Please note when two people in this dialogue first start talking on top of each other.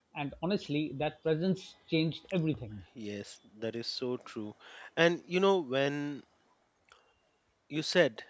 none

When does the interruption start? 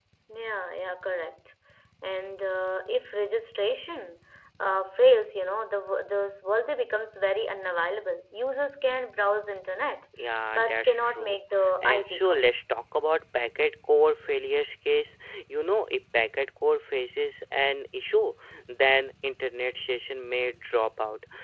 10.5 s

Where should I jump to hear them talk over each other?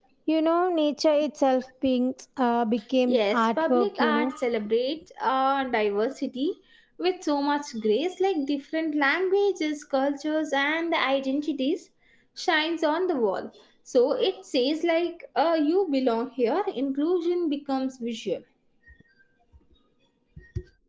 3.1 s

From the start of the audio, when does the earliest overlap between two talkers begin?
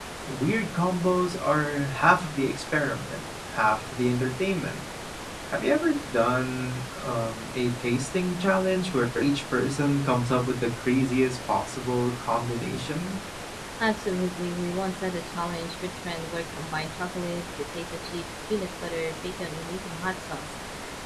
none

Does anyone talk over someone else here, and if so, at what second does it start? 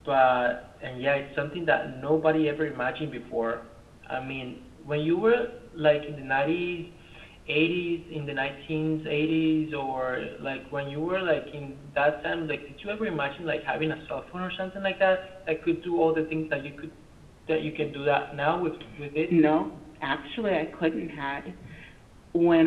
none

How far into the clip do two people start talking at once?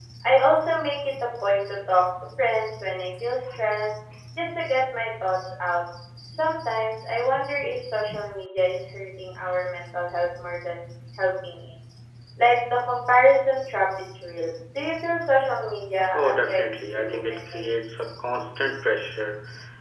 16.1 s

